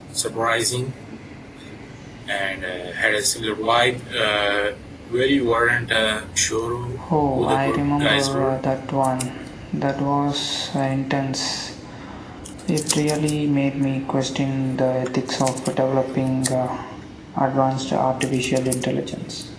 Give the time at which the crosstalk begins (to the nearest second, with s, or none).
7 s